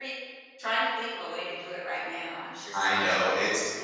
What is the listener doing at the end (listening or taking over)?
taking over